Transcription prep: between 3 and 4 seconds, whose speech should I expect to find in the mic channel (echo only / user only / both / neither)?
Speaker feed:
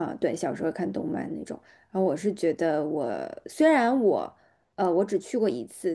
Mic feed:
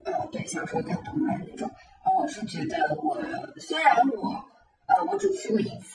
echo only